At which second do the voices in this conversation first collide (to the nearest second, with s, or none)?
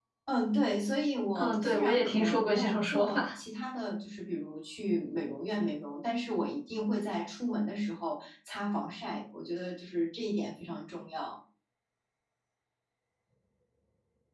1 s